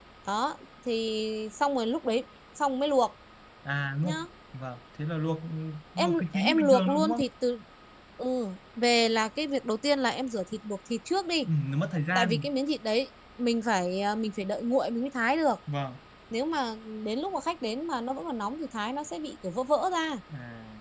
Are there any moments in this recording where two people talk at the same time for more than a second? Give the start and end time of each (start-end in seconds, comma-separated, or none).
6.0-7.2